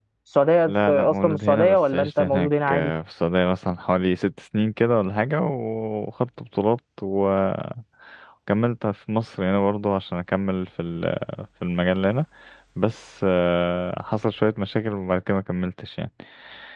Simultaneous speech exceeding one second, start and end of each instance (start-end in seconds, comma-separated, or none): 0.7-2.9